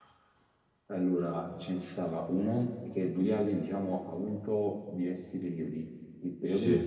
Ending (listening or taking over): listening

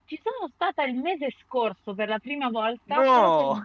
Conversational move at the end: listening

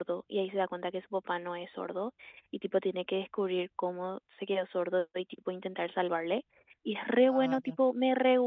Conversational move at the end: listening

